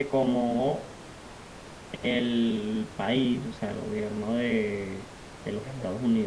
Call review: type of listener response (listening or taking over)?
listening